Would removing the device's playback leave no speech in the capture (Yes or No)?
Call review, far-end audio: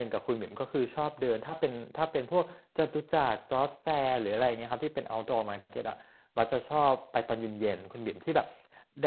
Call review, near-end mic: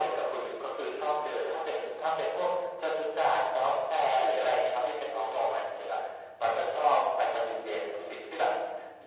Yes